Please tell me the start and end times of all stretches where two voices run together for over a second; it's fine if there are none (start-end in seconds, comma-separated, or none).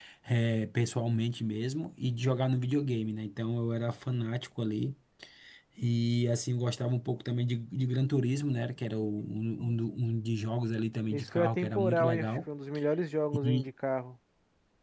11.1-12.4